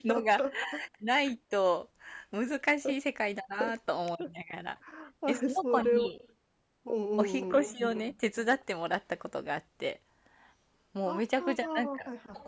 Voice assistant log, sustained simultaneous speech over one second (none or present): present